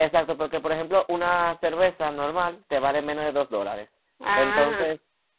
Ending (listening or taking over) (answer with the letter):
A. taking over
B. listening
B